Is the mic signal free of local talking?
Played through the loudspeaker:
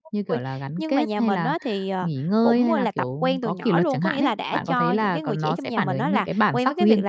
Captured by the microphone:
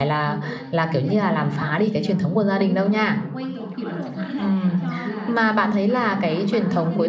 No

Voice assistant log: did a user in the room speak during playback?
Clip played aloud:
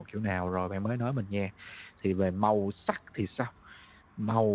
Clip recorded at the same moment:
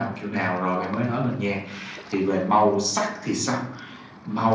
No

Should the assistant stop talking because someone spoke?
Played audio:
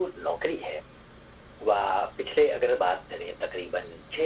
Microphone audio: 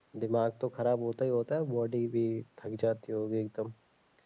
Yes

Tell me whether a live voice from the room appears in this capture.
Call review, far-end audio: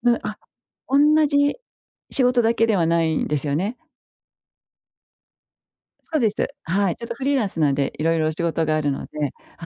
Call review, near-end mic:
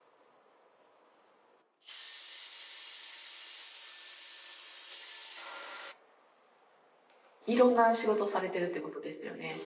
Yes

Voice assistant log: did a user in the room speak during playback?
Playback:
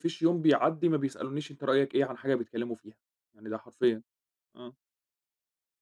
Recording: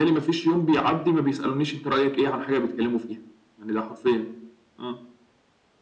No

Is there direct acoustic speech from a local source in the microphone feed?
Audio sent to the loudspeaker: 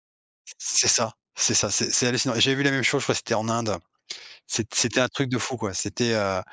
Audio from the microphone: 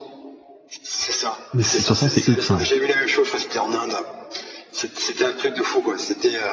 Yes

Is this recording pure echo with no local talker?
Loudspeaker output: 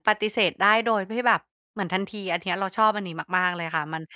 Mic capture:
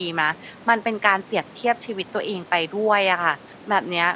No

